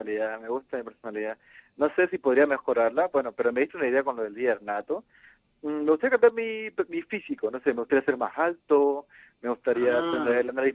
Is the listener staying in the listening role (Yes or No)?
Yes